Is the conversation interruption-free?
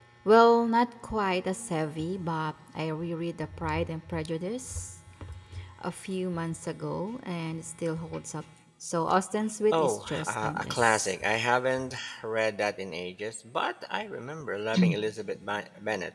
No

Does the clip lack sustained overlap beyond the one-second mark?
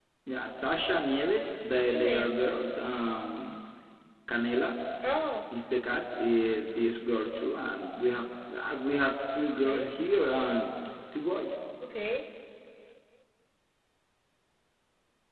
Yes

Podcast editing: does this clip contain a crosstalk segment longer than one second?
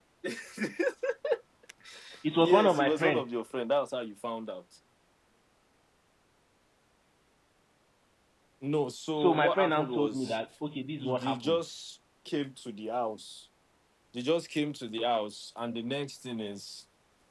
Yes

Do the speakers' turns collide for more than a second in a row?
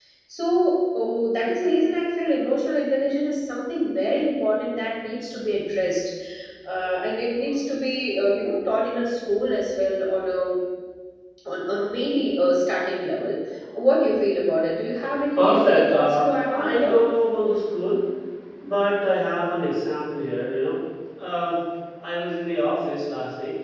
Yes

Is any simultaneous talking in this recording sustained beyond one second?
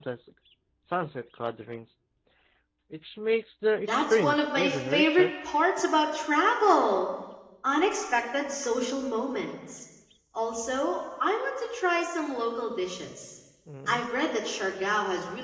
Yes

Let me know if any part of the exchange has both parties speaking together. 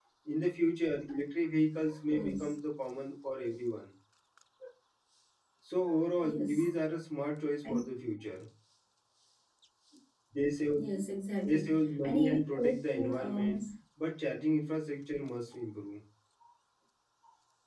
Yes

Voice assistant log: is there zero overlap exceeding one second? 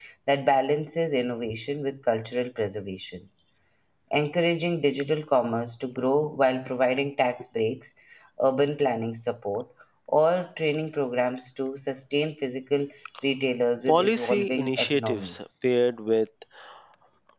No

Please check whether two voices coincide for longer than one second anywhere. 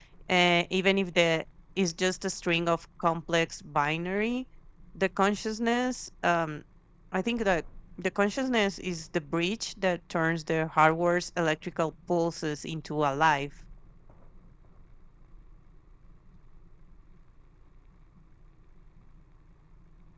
No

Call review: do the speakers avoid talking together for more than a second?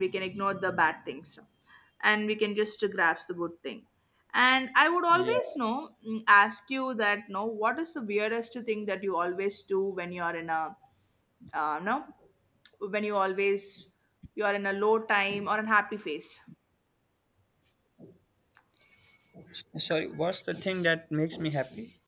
Yes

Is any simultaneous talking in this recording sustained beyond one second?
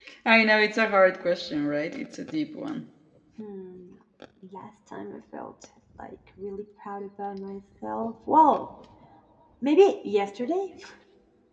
No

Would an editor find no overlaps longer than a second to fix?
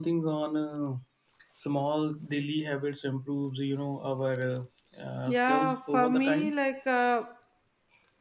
No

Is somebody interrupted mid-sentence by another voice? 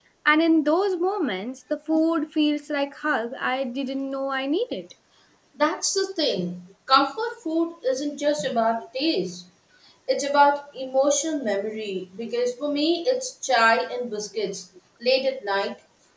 No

